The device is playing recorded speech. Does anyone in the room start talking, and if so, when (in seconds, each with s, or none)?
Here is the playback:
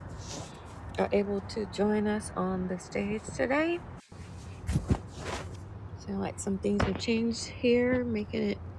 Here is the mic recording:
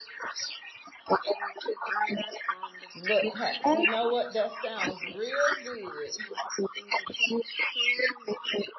2.9 s